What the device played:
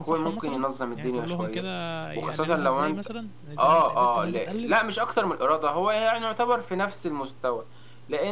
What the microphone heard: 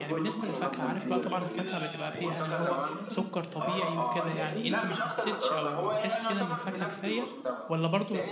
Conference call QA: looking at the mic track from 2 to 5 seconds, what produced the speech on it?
both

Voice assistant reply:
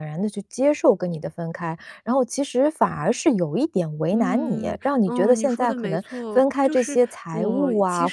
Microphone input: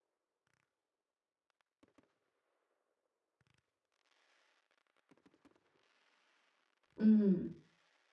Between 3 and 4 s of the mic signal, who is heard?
neither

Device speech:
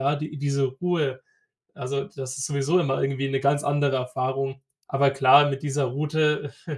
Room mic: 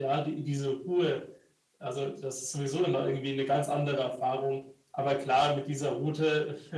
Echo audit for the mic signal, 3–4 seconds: echo only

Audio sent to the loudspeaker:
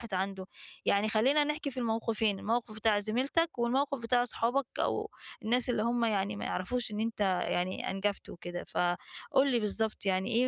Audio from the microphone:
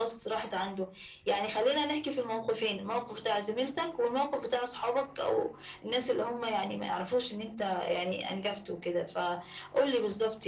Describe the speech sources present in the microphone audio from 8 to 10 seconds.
echo only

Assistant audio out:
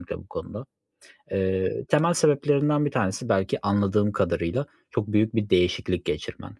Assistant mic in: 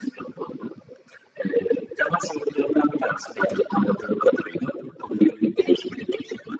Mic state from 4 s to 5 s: echo only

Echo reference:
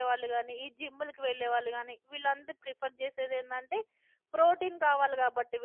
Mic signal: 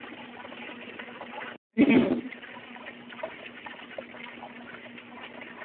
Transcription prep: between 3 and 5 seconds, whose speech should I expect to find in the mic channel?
neither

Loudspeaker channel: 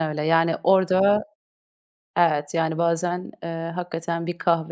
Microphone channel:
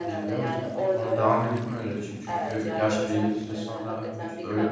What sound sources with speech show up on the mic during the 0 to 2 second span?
both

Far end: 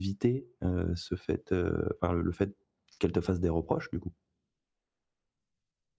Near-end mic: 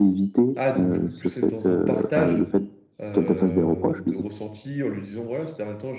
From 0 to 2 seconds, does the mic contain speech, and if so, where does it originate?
both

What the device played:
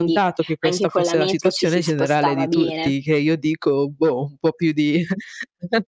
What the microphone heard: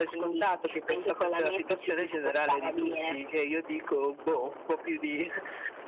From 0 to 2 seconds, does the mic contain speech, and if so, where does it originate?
echo only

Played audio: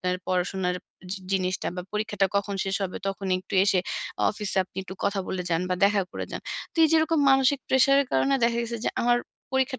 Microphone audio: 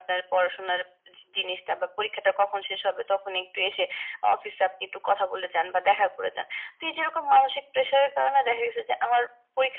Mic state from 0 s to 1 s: echo only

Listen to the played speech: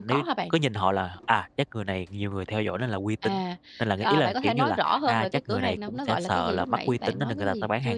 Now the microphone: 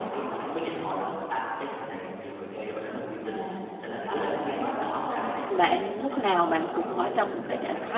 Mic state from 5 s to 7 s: both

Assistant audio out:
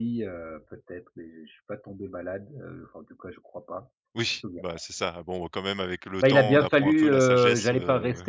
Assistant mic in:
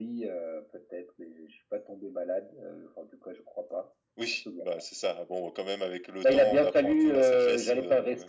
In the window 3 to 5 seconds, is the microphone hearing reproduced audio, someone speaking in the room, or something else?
echo only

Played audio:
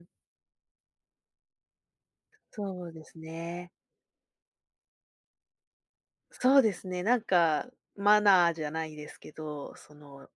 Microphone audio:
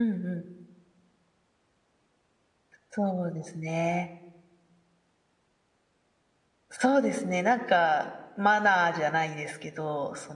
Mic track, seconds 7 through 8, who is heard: echo only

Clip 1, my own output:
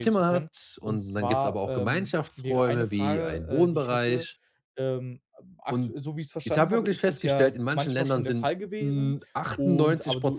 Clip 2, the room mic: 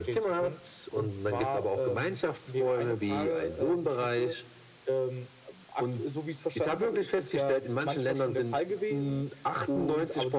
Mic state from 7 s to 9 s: echo only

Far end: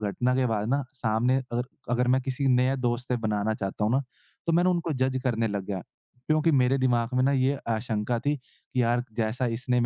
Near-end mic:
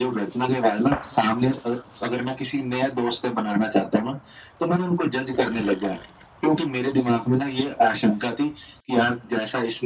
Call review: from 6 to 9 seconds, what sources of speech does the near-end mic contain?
echo only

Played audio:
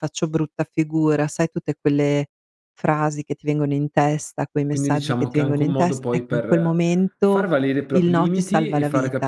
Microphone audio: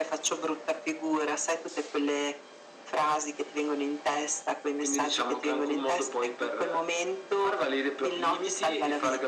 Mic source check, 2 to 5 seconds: echo only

